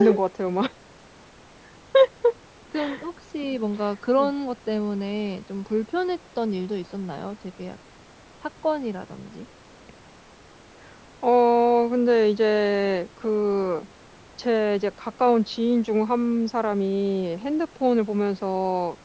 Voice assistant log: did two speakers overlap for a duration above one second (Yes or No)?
No